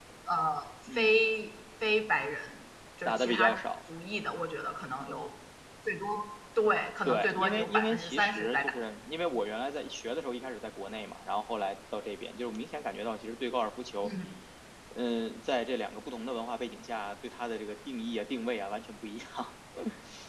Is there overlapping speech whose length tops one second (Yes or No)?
Yes